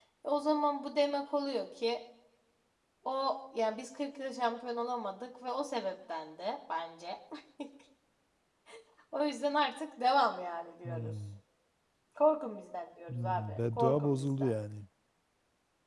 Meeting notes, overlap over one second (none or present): present